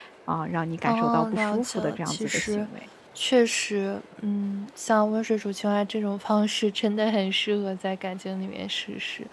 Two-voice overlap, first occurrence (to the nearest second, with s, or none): 1 s